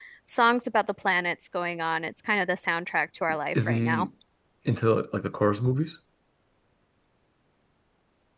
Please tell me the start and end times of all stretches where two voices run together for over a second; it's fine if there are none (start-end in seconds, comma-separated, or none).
none